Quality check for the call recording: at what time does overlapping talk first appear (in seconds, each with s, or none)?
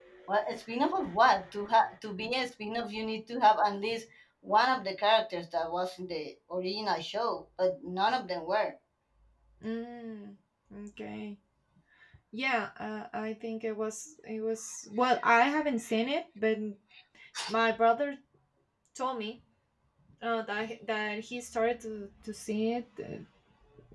none